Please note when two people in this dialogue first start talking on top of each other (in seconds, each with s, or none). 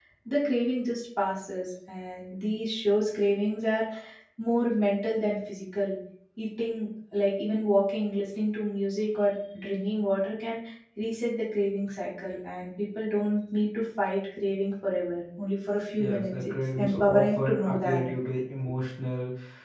16.0 s